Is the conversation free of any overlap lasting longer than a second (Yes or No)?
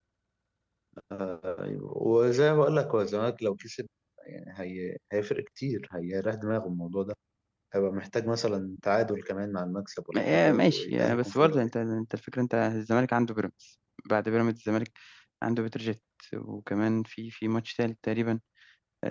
No